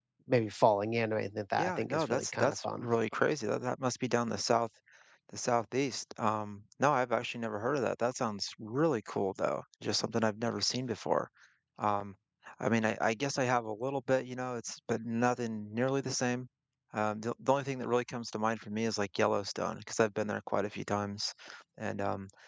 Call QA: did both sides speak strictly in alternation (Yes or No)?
No